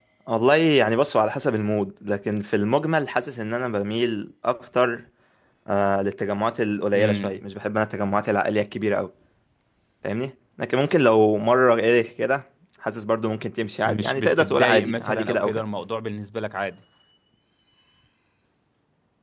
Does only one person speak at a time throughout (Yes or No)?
No